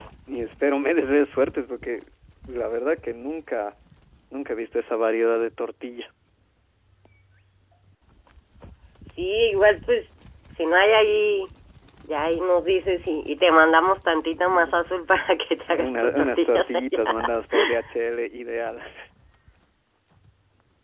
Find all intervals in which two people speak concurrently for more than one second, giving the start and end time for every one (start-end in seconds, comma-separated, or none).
15.7-17.3